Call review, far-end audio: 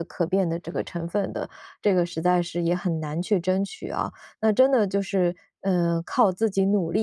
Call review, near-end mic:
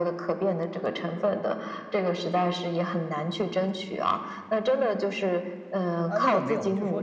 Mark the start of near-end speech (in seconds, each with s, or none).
6.1 s